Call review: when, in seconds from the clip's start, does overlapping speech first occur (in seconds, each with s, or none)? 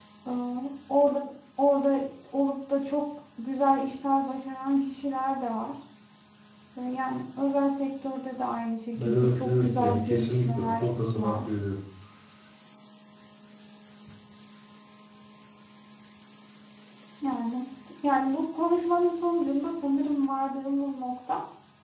9.0 s